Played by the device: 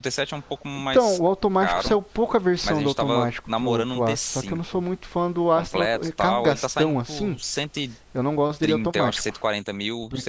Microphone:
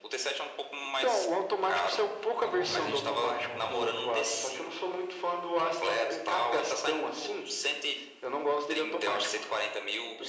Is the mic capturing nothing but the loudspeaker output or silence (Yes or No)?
No